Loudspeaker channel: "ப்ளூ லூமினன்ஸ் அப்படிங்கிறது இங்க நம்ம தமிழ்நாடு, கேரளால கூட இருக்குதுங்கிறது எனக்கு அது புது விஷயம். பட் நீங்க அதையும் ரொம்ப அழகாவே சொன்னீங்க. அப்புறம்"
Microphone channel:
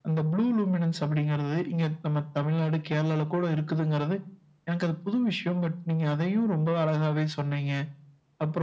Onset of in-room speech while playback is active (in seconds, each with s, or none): none